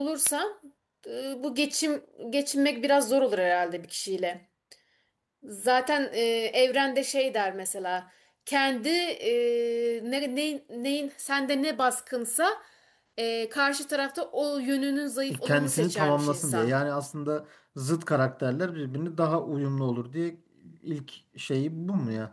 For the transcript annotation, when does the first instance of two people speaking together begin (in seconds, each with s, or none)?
15.3 s